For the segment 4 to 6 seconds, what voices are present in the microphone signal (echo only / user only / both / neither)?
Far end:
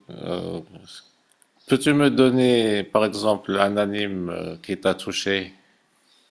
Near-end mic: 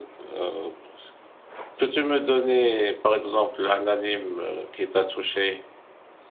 echo only